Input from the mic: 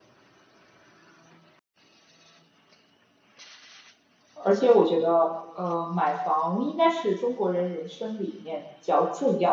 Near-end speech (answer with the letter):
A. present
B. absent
A